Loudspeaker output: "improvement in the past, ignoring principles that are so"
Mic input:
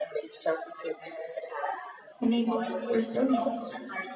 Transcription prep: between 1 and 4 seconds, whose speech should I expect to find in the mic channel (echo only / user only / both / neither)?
both